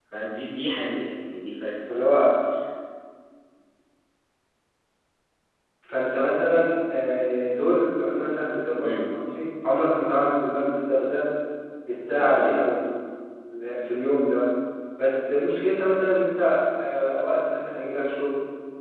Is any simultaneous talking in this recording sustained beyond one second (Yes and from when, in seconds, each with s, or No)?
No